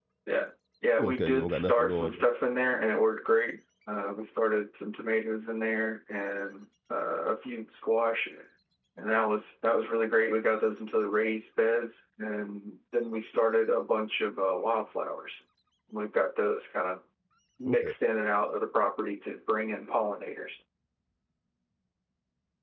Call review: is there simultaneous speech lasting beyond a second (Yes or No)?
Yes